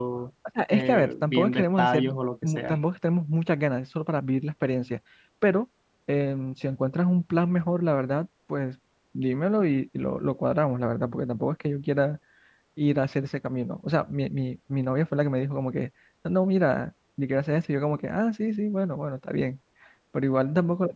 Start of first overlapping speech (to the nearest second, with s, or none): 1 s